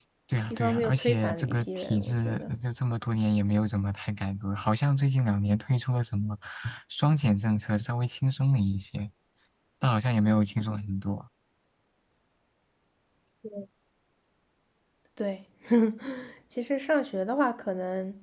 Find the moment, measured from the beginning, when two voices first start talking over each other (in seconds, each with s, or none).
0.5 s